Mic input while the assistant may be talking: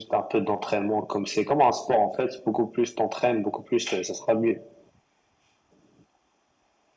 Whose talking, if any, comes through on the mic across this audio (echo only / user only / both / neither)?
echo only